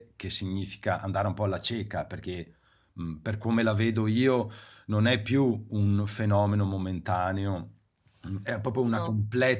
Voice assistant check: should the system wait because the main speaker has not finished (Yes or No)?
Yes